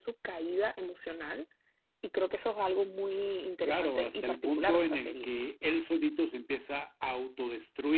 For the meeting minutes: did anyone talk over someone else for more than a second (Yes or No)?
Yes